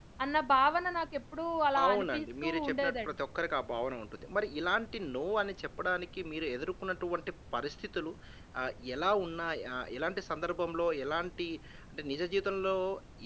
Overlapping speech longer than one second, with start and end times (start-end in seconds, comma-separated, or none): 1.9-3.1